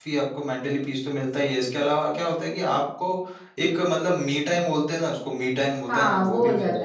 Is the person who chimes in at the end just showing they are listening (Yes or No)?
No